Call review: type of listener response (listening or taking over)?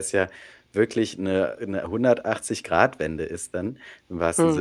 listening